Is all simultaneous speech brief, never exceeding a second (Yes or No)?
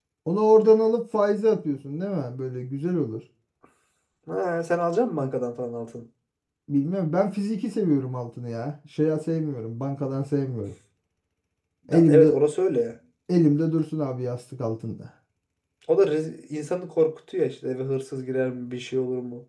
Yes